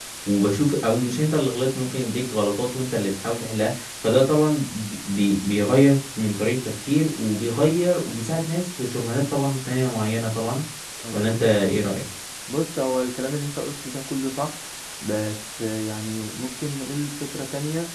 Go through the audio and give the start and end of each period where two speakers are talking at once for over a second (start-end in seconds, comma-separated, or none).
none